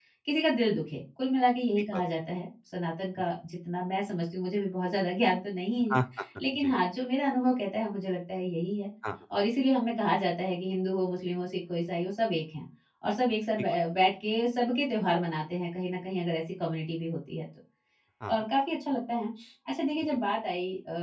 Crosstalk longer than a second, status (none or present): none